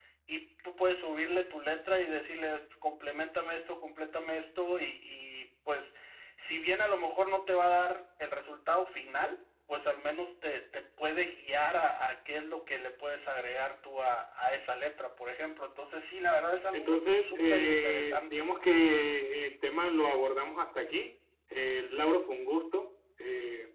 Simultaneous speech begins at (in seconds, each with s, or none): 16.7 s